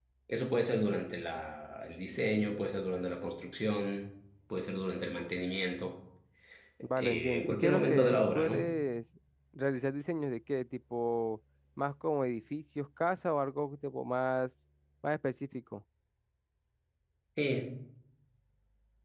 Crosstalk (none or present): present